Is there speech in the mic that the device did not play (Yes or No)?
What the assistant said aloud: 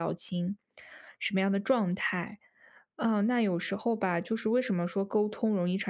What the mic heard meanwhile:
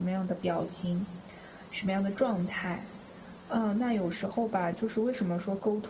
No